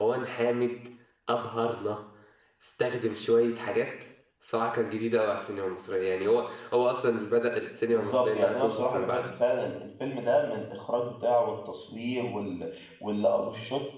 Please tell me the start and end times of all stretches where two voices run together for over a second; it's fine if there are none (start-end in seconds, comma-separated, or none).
7.9-9.3